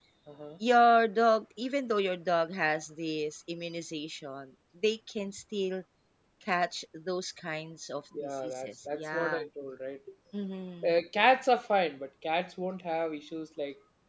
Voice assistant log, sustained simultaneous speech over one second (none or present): present